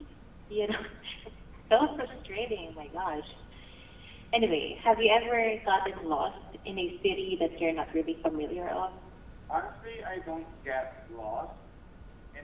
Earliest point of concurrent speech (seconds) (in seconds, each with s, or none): none